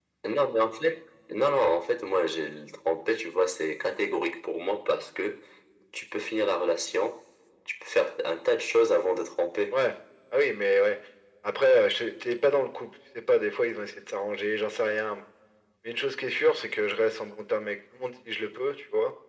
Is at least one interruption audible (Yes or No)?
No